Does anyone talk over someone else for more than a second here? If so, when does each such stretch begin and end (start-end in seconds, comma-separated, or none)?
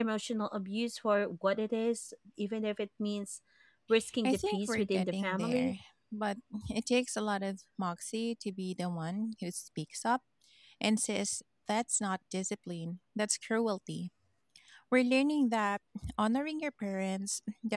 4.2-5.7